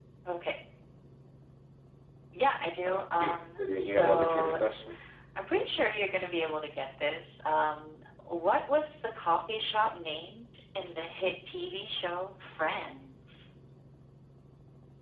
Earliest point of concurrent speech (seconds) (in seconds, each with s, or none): 2.8 s